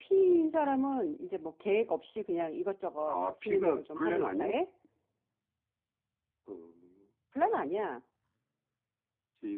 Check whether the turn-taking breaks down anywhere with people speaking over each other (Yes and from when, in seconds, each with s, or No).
Yes, from 3.1 s